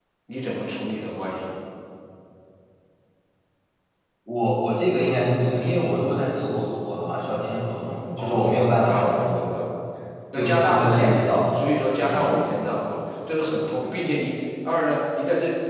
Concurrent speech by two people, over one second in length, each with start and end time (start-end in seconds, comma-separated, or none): 8.2-9.5, 10.3-11.6